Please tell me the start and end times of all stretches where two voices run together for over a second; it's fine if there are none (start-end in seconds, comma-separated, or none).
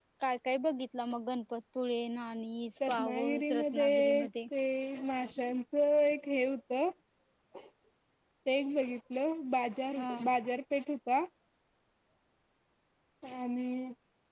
2.9-4.3